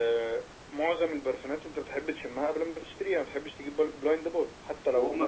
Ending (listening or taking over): taking over